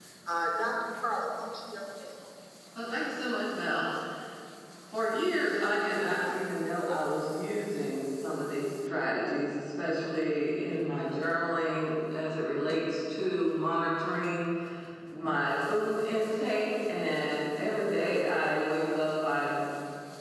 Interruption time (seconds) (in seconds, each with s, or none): none